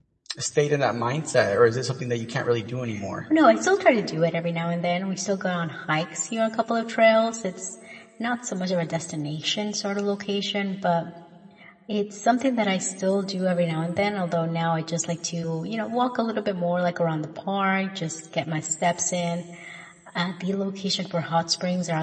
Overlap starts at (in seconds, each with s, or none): none